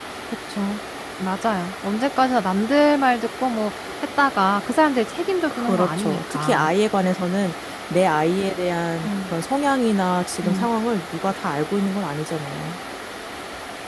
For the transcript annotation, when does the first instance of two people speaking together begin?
5.5 s

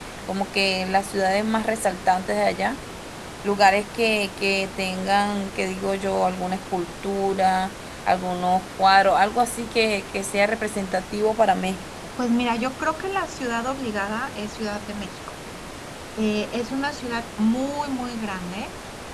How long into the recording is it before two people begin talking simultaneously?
none

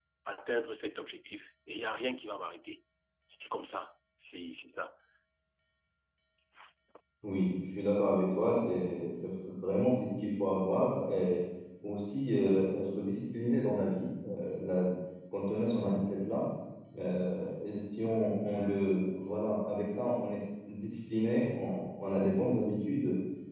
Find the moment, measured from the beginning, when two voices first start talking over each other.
none

